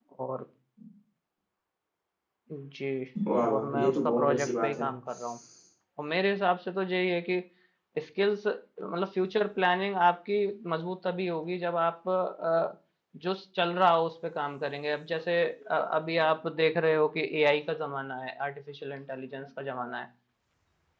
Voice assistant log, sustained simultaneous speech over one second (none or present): present